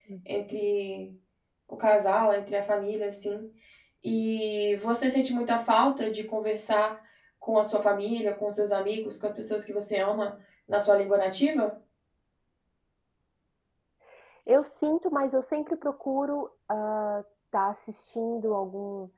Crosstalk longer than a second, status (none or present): none